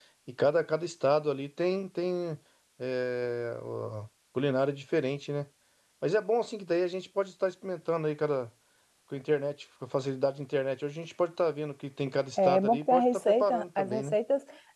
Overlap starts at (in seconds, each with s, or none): 12.4 s